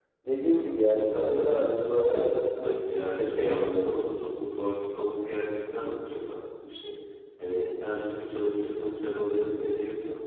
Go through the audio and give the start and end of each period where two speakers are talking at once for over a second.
0.9-4.0

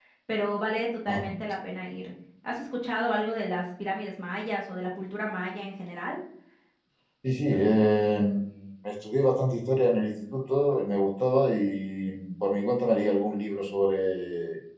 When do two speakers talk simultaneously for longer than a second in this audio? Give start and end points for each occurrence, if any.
none

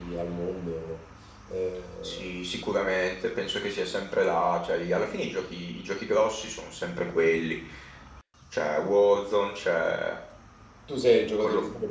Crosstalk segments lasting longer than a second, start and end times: none

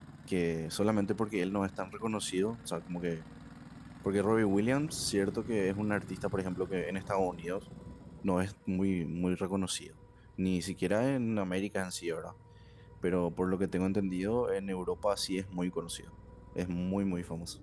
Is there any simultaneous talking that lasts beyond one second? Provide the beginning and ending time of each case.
none

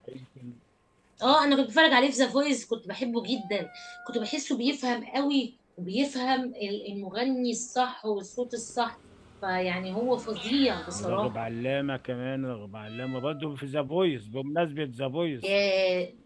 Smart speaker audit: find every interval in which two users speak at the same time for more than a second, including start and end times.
none

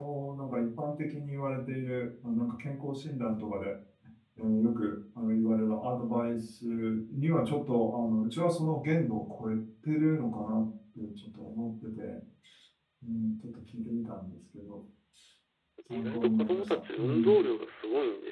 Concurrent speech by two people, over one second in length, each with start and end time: 15.9-17.4

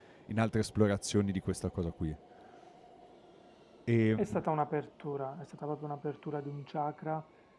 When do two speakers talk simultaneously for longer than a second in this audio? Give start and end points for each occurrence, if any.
none

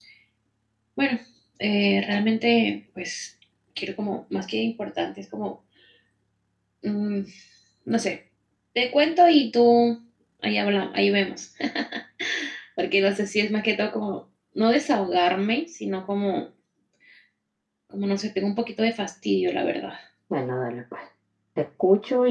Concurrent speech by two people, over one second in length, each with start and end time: none

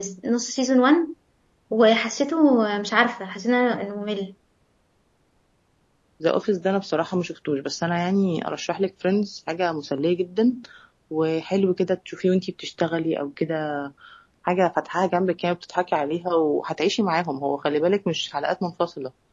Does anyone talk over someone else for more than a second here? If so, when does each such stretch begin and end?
none

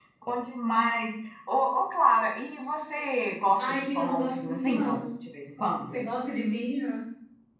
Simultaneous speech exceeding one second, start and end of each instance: 3.6-5.0

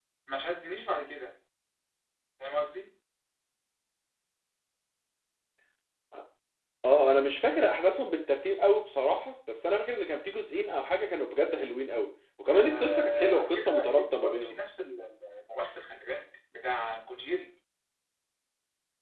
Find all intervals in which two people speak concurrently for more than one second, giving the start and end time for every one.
12.5-14.5

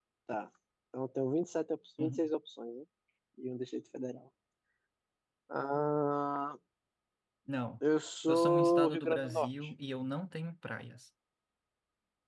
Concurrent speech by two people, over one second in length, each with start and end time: 8.3-9.5

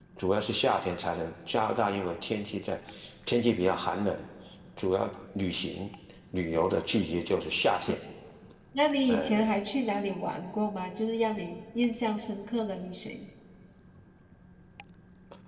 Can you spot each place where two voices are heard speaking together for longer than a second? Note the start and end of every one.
none

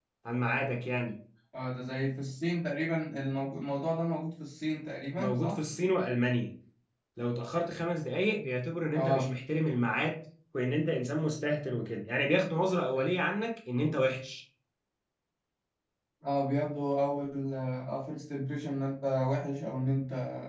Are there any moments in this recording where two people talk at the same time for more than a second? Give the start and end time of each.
none

